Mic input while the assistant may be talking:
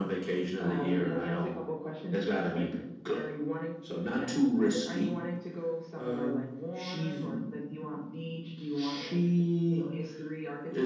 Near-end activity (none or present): none